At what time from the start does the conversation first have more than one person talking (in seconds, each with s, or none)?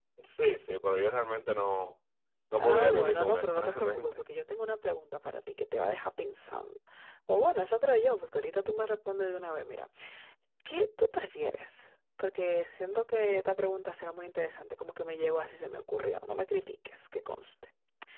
2.5 s